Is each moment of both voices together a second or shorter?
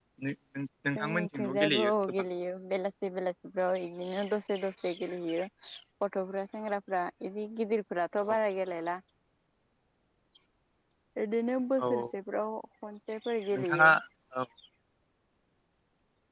No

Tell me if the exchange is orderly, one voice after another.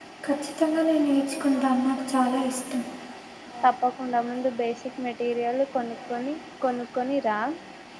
Yes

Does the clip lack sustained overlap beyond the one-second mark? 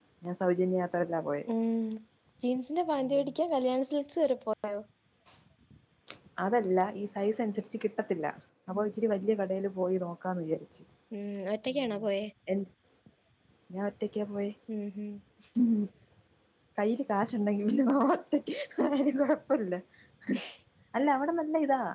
Yes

